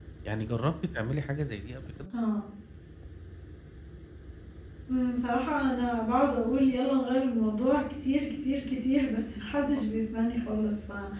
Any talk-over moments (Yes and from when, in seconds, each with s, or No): No